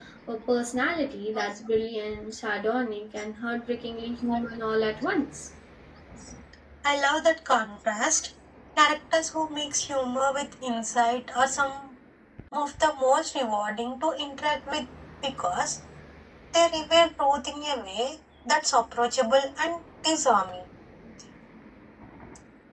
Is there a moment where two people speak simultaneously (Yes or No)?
No